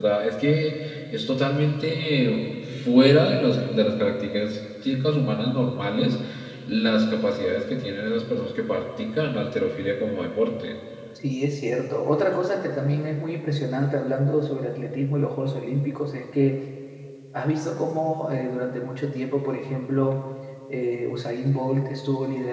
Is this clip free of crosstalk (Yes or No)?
Yes